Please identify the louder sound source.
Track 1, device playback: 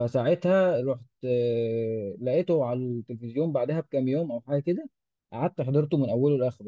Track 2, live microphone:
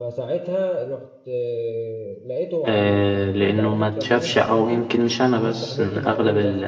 user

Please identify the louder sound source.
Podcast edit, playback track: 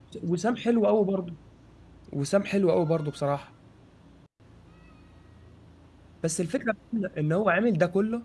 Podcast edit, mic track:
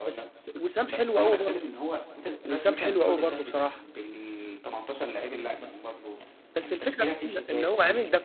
echo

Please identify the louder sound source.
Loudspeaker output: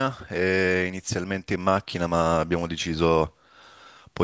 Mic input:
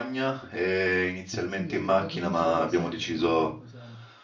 echo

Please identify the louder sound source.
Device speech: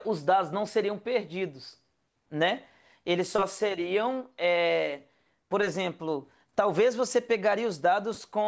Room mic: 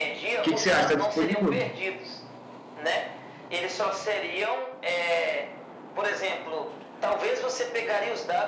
user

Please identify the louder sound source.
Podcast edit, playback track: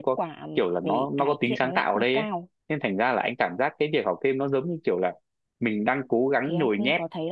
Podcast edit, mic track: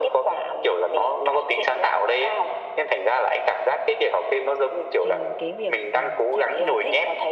echo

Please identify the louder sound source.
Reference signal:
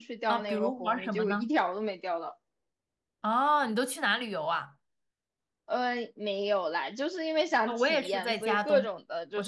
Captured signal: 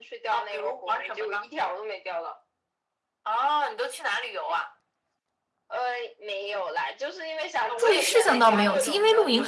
user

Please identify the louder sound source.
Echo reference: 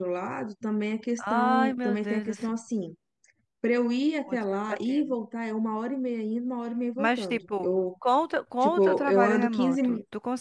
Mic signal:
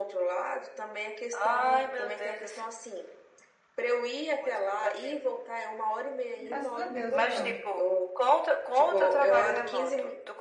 echo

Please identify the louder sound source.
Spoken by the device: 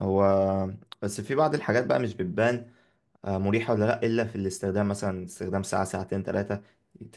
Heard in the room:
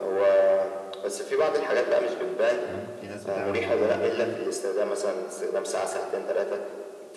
echo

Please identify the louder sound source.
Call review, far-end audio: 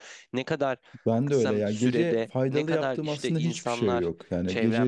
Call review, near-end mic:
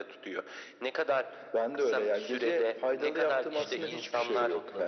echo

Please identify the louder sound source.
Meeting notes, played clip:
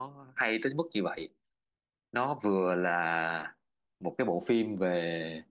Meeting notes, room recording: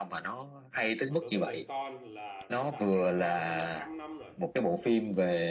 echo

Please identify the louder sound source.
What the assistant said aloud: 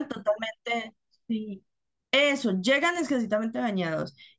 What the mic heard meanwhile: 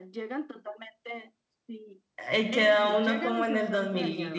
user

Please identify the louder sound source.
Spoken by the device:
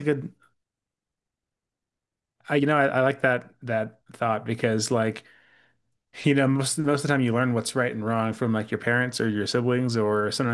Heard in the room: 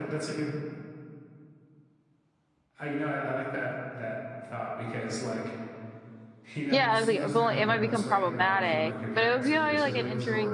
user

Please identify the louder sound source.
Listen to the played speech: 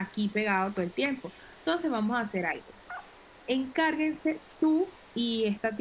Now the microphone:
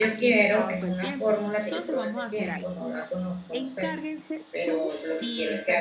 user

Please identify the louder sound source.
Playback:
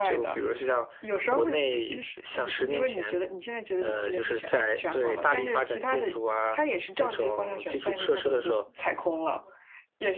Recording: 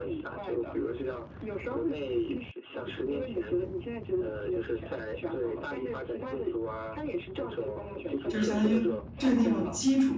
user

